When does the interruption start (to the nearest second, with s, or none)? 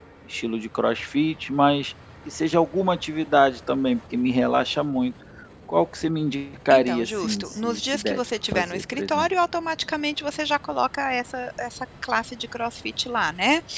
7 s